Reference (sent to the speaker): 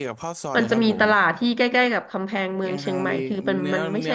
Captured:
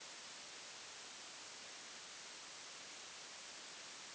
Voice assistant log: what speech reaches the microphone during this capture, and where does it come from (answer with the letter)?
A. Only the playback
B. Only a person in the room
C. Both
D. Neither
D